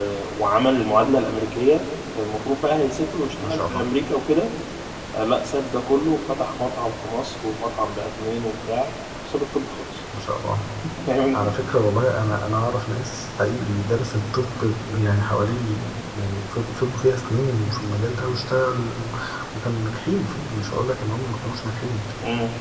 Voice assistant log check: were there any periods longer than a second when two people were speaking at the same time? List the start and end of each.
none

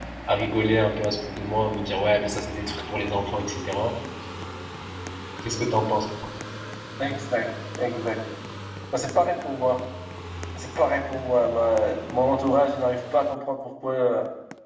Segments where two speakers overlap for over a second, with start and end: none

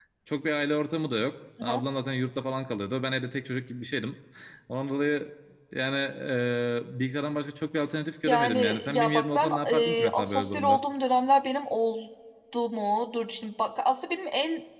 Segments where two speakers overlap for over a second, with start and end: 8.3-10.8

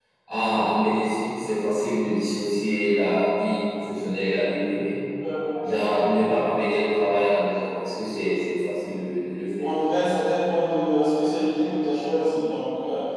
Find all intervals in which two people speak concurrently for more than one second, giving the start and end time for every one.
none

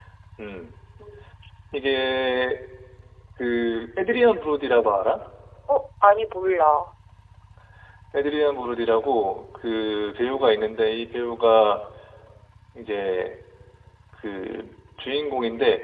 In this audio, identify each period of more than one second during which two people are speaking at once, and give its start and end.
none

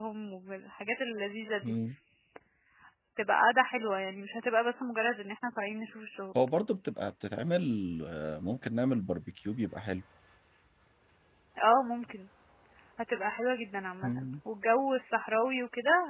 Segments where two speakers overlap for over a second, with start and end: none

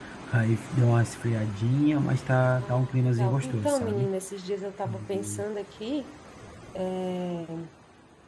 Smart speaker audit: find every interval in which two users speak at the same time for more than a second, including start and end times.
2.6-4.1

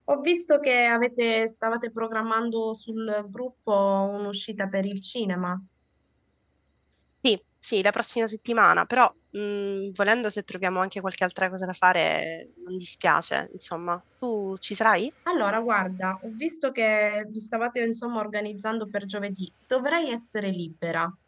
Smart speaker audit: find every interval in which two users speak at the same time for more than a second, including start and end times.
none

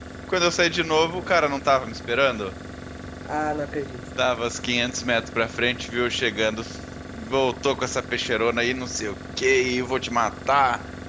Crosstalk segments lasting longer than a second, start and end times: none

